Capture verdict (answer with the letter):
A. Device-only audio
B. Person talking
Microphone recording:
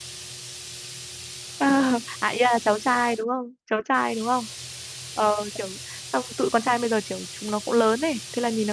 B